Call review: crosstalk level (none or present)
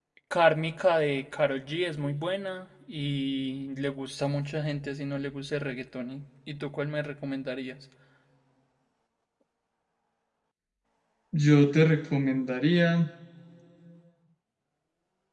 none